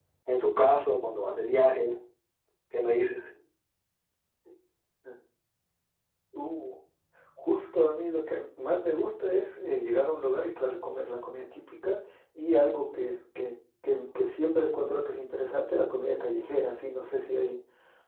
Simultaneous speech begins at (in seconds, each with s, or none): none